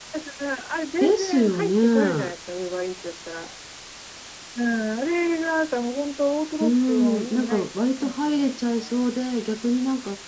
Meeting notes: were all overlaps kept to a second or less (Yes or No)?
No